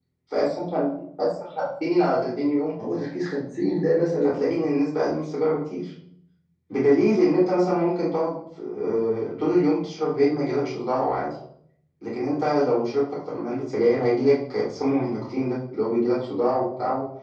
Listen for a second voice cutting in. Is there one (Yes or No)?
No